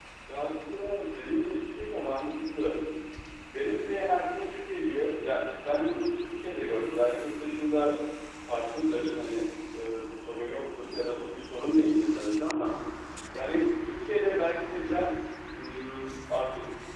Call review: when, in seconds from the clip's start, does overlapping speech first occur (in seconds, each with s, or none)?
none